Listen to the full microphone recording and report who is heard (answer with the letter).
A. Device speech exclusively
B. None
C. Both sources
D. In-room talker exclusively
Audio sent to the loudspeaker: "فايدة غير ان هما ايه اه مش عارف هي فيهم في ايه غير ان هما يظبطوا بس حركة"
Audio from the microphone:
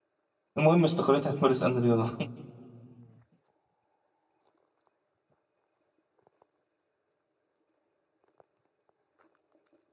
D